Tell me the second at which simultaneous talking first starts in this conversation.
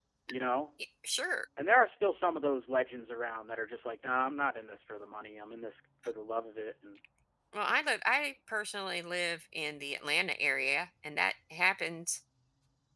none

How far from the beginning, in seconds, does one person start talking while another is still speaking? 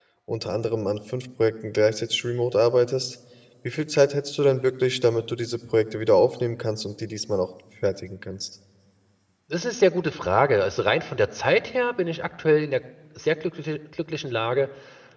none

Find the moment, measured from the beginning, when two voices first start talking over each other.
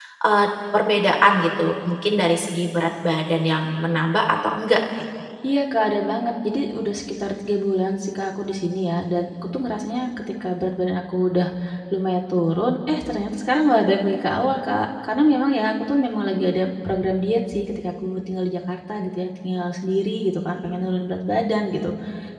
none

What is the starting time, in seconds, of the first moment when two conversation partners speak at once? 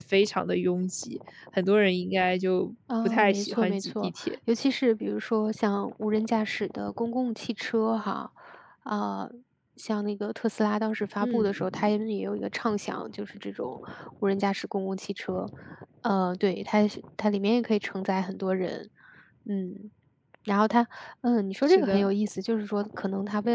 3.0 s

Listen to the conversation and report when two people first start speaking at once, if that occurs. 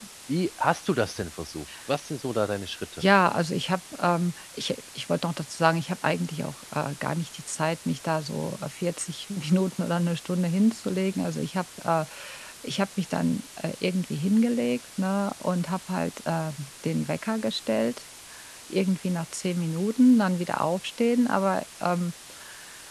none

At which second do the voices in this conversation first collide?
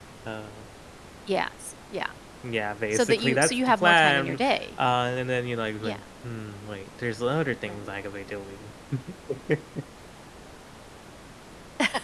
2.9 s

